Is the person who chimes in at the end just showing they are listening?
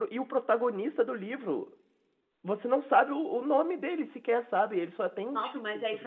No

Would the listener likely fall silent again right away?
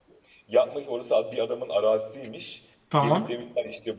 Yes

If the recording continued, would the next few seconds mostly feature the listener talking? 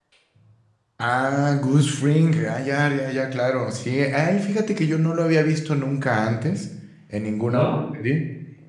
No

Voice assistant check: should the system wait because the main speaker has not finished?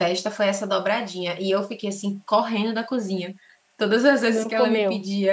Yes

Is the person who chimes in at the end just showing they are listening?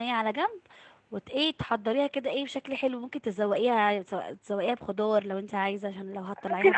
No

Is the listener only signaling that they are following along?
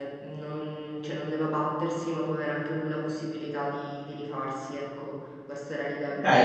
No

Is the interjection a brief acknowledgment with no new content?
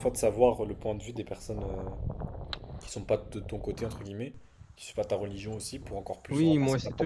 No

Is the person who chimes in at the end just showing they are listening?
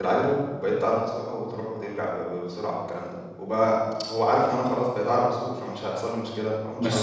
No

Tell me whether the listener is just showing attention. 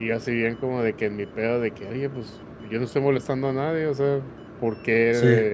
Yes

